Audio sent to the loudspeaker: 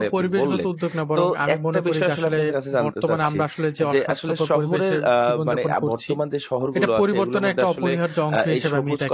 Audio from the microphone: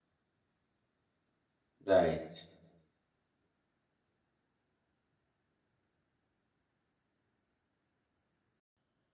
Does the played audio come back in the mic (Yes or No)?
No